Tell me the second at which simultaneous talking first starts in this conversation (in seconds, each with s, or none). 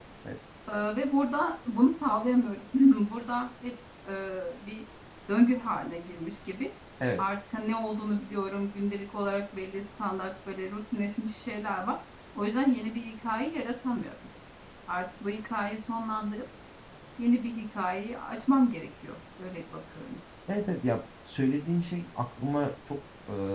none